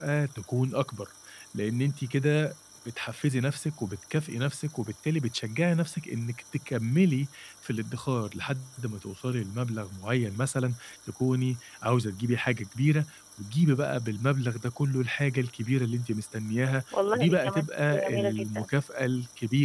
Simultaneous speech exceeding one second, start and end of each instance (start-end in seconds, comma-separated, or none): 17.1-18.7